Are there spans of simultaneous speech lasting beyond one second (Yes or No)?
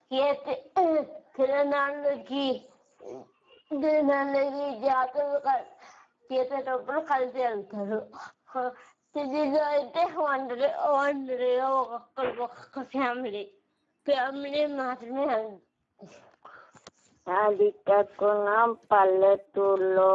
No